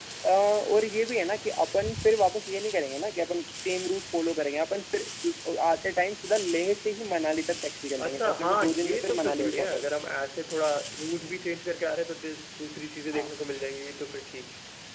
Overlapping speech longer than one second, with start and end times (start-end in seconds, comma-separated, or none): 8.0-9.9